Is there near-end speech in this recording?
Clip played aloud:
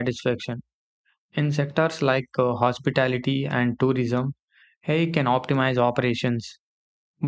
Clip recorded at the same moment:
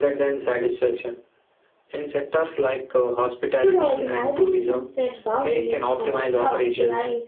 Yes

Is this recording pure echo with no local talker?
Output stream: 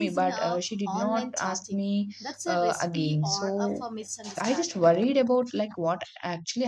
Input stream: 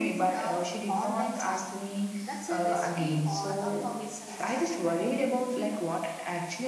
Yes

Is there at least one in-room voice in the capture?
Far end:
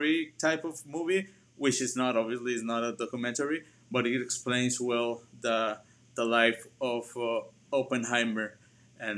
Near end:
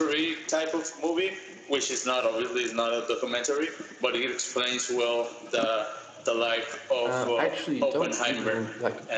Yes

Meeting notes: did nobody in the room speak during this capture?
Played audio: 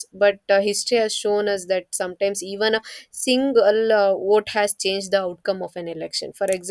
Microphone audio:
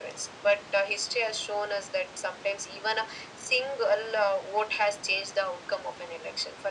Yes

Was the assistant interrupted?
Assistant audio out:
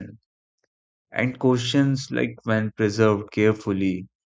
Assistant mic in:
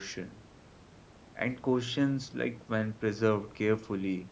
No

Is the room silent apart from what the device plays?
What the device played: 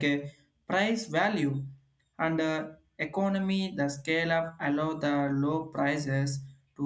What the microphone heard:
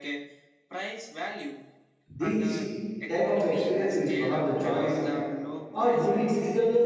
No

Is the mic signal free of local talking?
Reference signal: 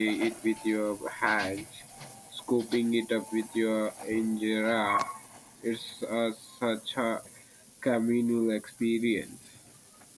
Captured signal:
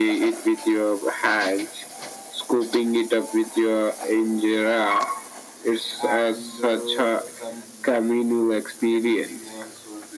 No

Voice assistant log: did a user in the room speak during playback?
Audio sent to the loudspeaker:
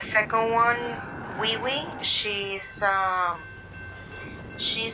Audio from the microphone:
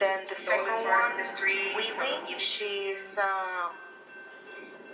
Yes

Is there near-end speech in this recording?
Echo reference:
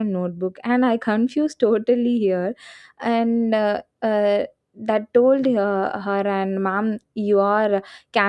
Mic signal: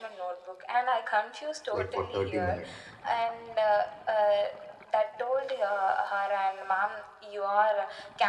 Yes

